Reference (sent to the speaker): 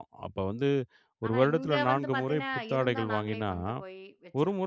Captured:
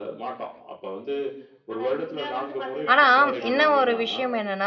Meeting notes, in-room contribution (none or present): present